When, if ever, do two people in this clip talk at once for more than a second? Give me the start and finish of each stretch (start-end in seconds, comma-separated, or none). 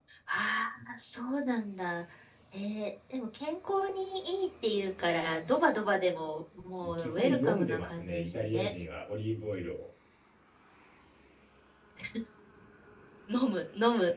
6.8-8.7